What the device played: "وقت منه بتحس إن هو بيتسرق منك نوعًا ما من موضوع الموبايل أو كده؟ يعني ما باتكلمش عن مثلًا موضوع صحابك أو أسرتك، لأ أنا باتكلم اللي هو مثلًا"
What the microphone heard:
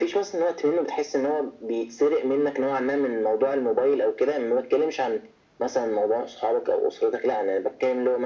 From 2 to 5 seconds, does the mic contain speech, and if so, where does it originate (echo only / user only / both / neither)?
echo only